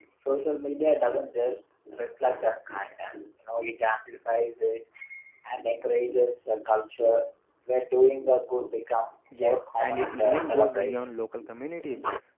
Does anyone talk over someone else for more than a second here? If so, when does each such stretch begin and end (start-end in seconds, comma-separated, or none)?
9.3-11.1